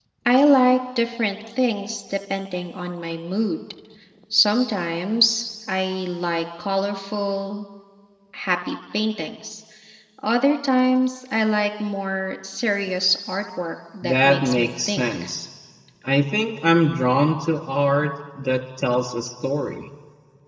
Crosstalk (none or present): present